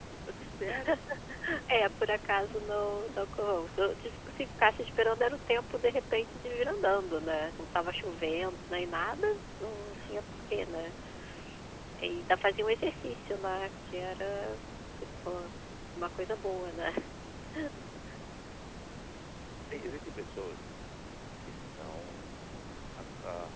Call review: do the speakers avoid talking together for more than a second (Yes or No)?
Yes